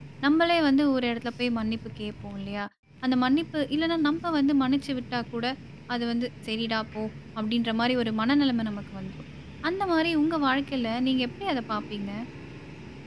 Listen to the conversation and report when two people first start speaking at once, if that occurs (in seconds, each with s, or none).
none